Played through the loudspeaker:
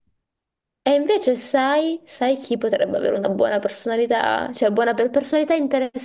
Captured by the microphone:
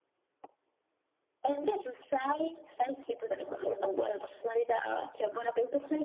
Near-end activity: none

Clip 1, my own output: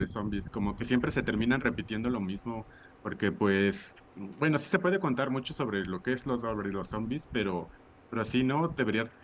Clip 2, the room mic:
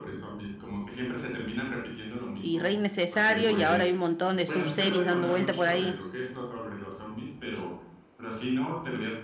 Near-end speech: present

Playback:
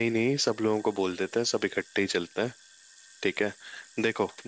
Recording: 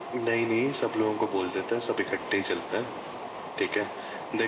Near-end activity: none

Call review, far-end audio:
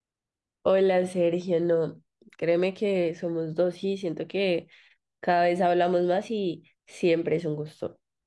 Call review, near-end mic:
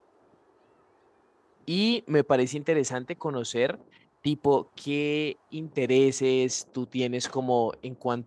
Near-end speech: present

